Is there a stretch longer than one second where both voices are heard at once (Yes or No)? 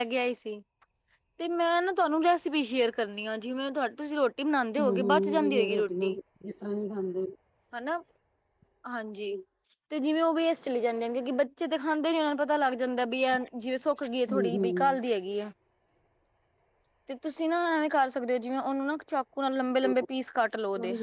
Yes